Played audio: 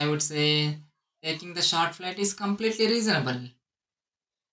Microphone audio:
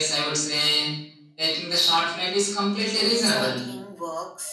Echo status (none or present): present